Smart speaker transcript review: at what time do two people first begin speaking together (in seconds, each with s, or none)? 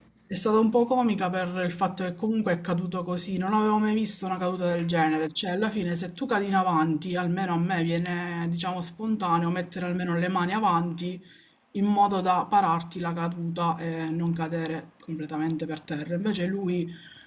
none